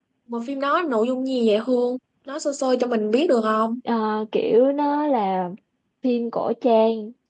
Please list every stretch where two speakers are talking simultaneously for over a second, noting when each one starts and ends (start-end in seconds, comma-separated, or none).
none